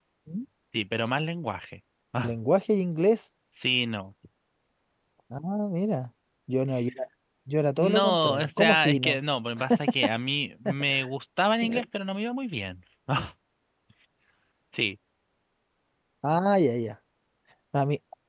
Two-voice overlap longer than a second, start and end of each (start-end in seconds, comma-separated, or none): 7.8-9.2